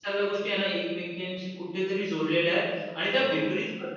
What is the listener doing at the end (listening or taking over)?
listening